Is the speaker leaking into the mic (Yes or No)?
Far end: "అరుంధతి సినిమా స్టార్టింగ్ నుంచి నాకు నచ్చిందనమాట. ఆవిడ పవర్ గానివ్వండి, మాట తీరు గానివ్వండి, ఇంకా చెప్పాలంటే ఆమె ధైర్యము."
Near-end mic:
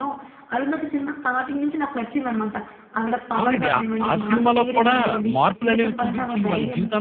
Yes